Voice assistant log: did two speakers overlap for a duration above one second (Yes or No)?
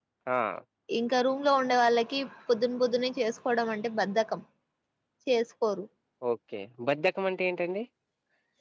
No